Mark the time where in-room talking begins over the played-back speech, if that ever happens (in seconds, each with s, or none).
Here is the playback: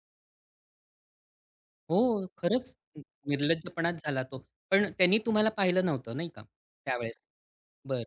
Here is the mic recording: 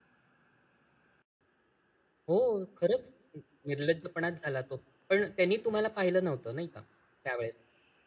none